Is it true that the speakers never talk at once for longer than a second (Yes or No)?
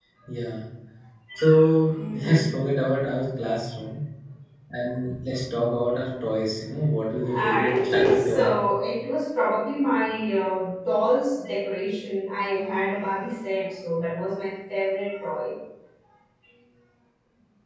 No